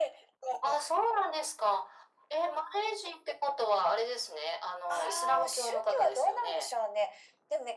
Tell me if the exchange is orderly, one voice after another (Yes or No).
No